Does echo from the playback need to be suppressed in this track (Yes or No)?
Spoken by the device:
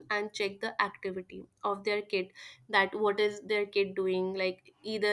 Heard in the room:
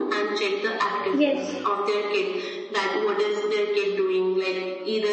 Yes